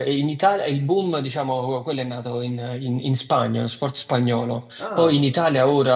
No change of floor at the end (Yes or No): Yes